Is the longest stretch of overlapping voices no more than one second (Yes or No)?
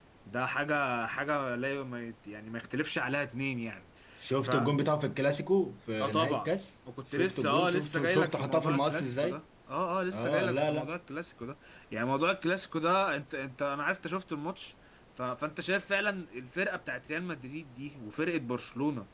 No